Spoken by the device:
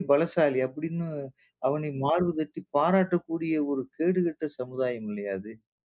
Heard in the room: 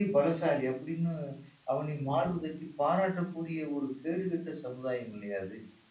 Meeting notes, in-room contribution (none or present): none